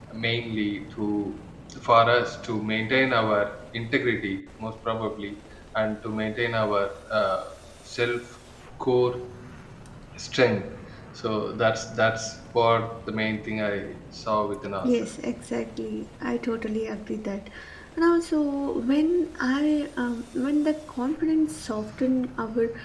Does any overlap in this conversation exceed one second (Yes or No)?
No